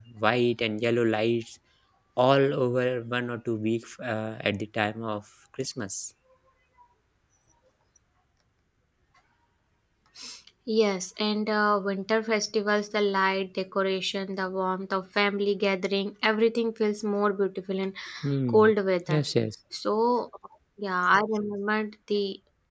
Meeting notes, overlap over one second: none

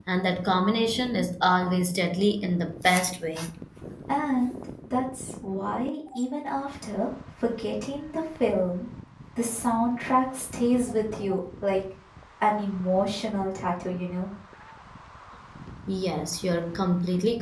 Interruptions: none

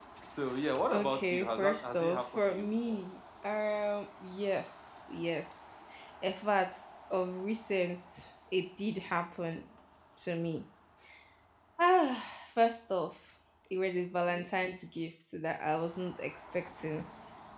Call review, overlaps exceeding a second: present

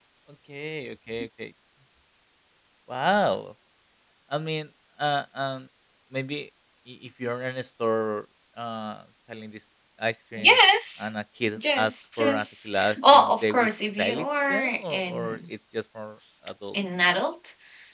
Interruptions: present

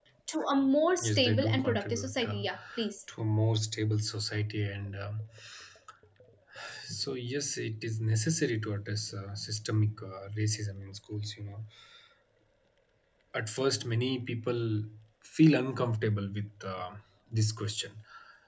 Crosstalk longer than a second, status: present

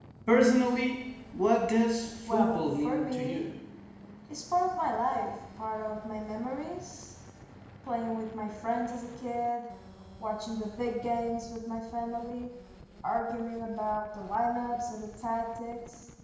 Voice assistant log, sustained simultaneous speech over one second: present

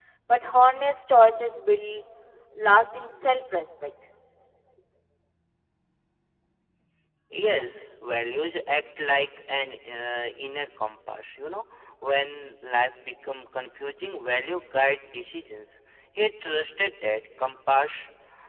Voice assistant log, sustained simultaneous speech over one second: none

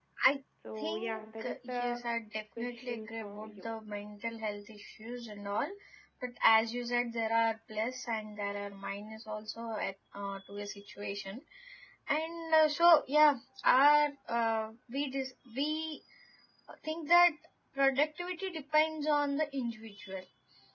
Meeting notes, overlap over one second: present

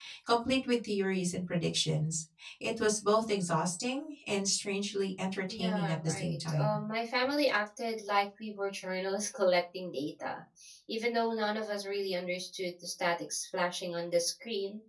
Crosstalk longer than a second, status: present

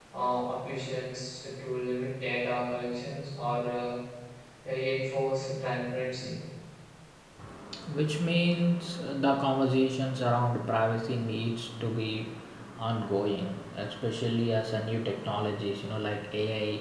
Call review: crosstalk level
none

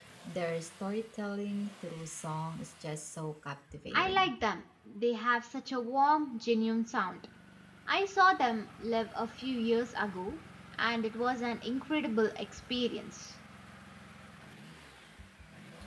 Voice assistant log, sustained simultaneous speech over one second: none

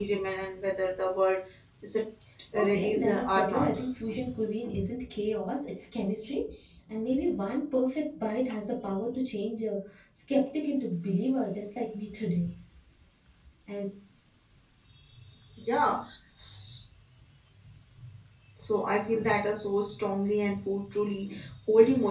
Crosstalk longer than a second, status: present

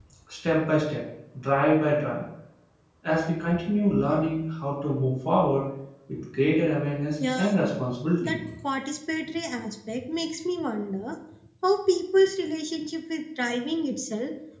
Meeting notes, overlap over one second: none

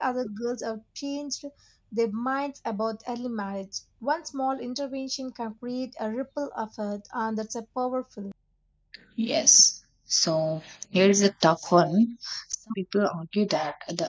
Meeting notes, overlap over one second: none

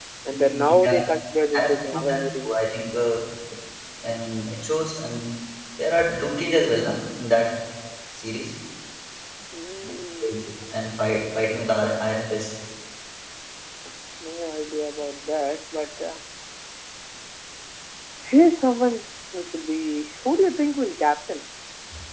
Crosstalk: present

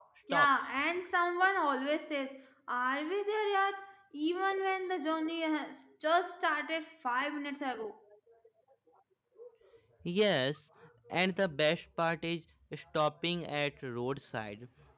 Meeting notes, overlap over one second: none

